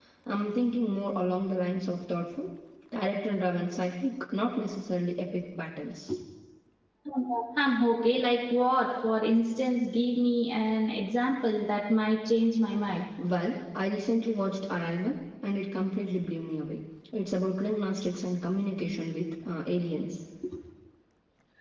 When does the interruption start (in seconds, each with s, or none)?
none